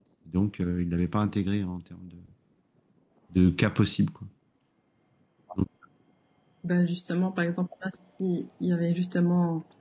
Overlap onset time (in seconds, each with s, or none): none